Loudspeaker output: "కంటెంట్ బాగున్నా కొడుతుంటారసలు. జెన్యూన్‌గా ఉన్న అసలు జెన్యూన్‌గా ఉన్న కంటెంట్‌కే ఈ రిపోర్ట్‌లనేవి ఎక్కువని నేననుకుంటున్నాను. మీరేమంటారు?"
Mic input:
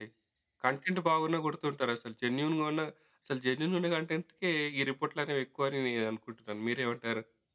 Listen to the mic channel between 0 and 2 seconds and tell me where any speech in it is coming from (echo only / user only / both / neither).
echo only